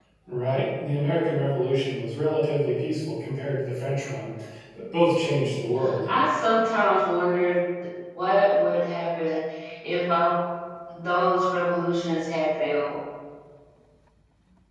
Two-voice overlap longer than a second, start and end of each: none

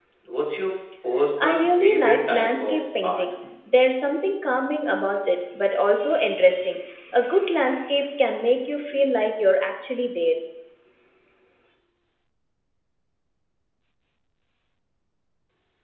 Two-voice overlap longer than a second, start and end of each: 1.4-3.2

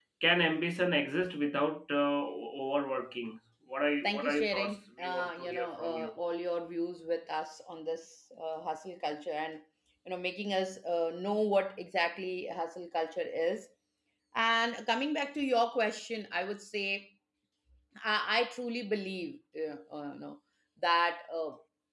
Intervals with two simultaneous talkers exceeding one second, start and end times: 4.0-6.1

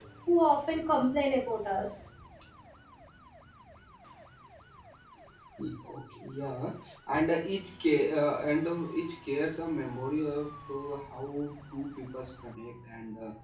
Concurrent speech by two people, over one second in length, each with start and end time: none

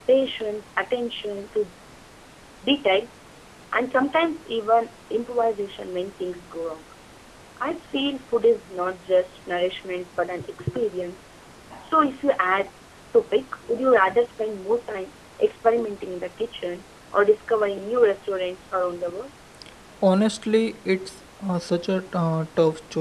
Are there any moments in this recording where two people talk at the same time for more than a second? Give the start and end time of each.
none

